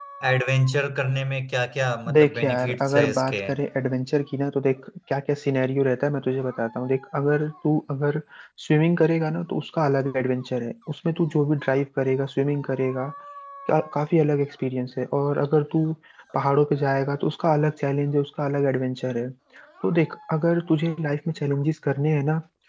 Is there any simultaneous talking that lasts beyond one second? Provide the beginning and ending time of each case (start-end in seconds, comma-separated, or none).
2.1-3.4